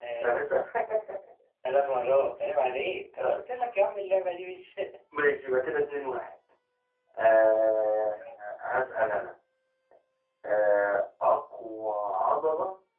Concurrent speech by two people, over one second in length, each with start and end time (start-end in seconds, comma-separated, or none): none